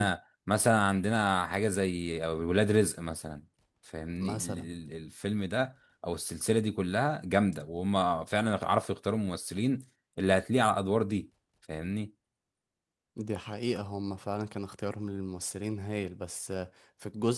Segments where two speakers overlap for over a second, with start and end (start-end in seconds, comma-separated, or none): none